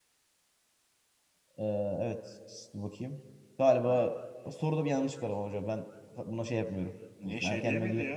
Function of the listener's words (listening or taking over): taking over